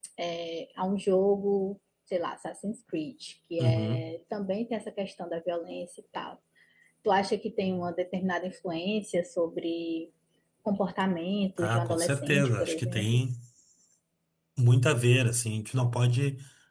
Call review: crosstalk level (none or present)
present